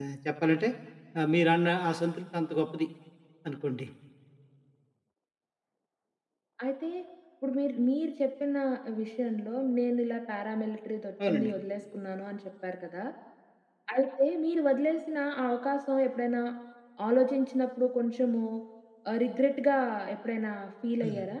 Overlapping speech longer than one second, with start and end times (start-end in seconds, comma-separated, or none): none